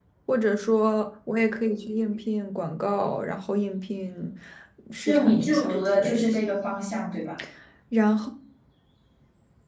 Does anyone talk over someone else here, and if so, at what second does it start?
5.0 s

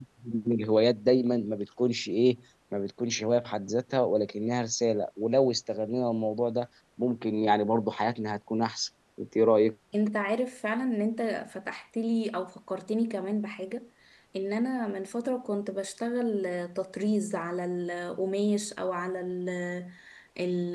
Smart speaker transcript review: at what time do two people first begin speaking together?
none

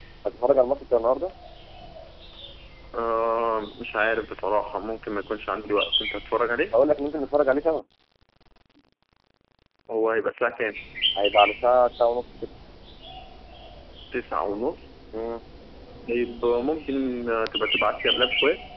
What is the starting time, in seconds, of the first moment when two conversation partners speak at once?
none

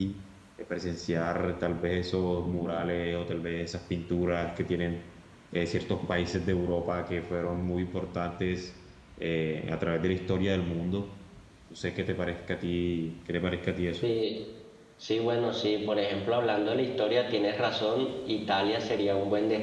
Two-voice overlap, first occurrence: none

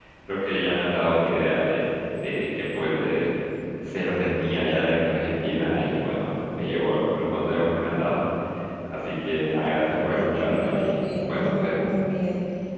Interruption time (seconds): 10.0 s

